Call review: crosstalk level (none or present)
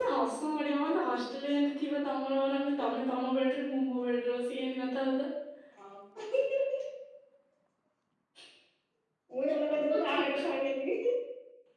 none